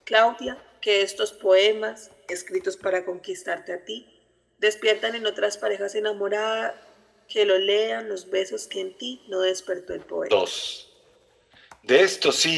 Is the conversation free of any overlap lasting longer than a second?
Yes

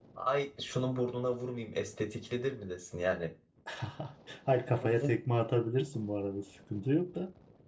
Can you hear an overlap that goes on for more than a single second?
No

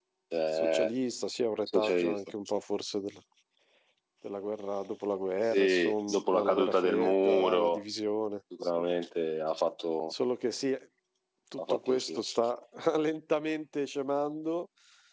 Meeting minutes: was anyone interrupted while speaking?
Yes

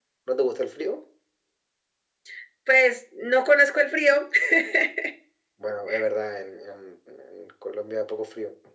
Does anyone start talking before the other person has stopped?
No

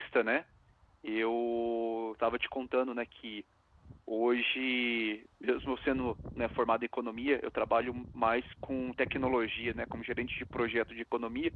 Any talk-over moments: No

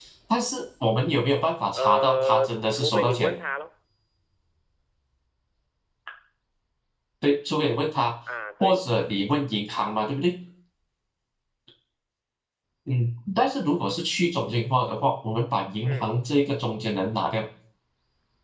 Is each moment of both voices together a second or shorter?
No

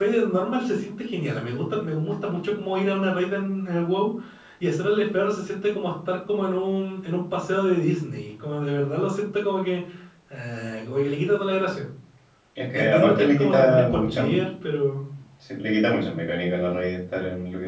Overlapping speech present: Yes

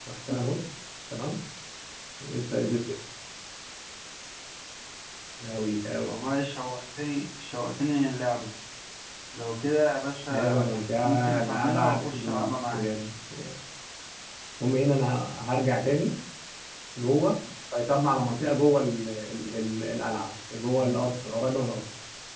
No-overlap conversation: No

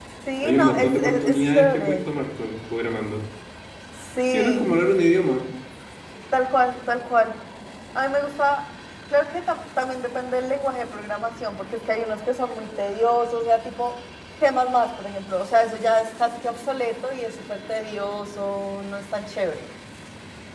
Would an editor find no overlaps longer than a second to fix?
No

